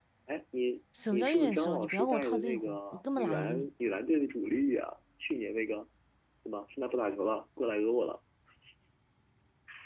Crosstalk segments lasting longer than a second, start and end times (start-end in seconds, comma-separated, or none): 1.1-3.7